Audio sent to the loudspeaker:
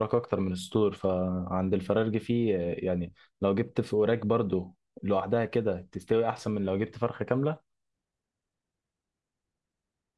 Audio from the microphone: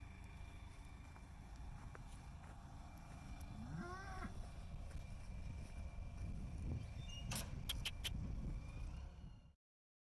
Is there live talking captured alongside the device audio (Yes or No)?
No